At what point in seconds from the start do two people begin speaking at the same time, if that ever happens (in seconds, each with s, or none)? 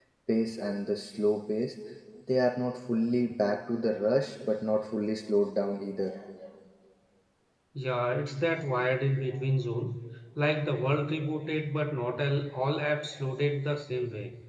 none